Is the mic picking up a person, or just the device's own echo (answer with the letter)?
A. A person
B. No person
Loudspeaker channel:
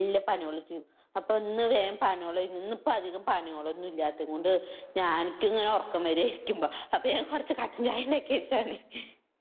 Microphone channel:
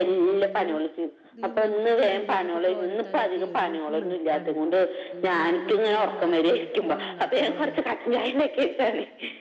A